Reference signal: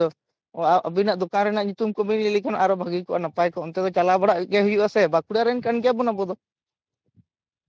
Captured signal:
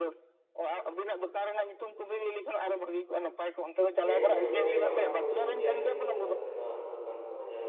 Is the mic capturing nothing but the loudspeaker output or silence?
No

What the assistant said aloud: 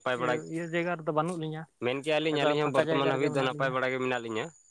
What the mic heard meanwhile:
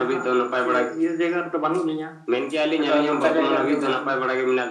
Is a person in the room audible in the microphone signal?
No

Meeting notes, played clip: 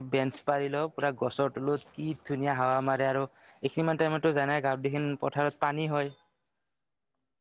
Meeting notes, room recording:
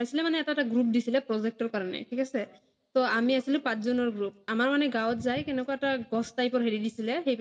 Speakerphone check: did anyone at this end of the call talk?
Yes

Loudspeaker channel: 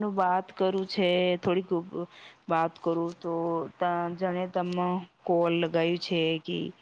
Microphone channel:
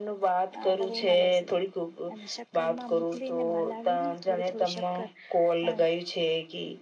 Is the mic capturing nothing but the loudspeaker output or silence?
No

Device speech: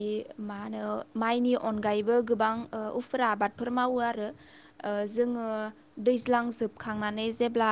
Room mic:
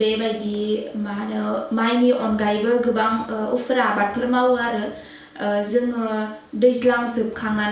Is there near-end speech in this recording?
No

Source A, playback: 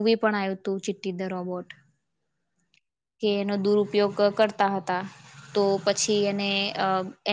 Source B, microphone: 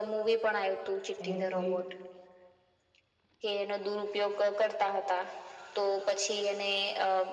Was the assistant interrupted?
Yes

